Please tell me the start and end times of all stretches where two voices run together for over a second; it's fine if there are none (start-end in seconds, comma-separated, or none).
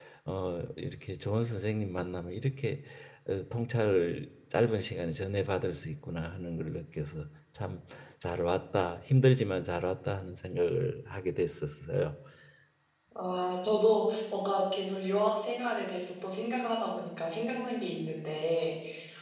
none